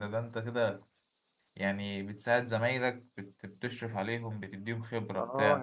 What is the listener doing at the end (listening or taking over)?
taking over